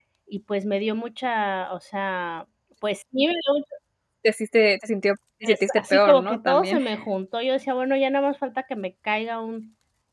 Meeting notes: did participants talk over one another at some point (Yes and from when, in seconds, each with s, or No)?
Yes, from 5.4 s